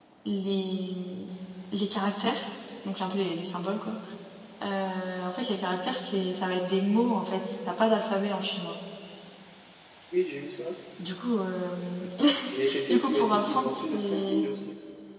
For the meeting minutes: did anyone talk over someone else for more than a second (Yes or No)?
Yes